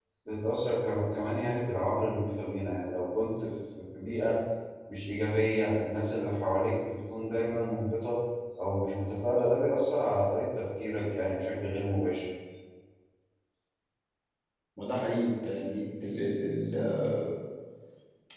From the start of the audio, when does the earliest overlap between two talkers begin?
none

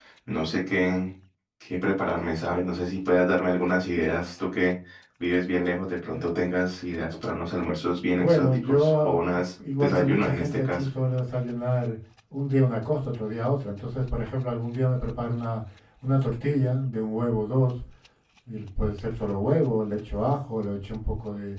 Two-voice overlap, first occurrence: 8.2 s

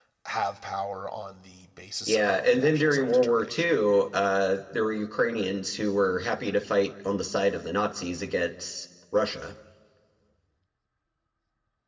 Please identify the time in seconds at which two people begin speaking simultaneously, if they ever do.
2.1 s

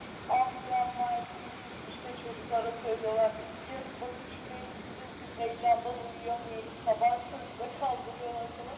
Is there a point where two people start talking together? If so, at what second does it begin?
none

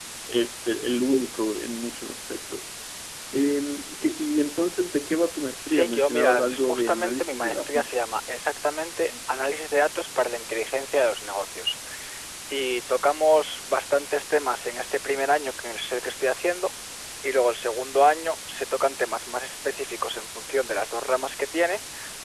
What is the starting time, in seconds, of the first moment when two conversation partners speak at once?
5.6 s

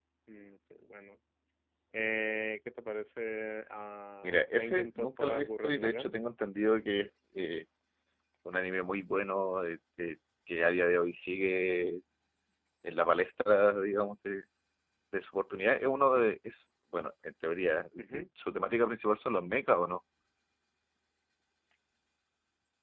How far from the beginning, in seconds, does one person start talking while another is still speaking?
4.2 s

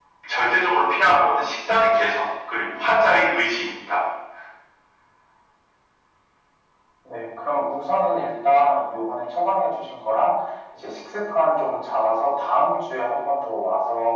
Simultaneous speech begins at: none

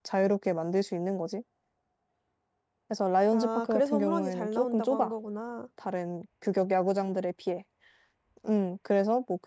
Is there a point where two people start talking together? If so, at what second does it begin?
3.3 s

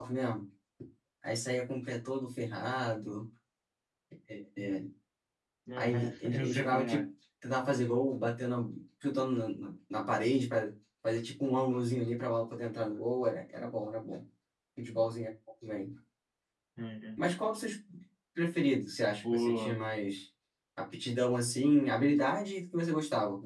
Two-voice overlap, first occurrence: 5.8 s

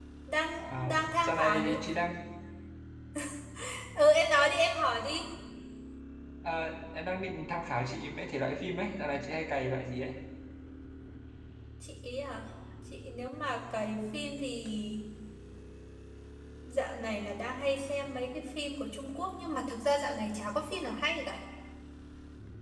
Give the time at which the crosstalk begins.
0.6 s

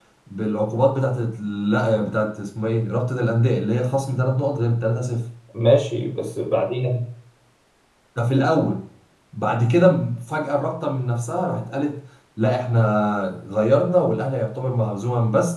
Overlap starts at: none

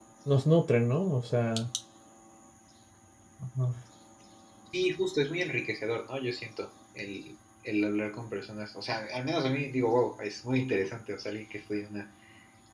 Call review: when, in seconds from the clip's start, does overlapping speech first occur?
none

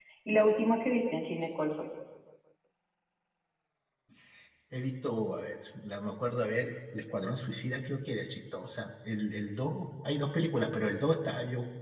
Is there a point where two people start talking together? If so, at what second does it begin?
none

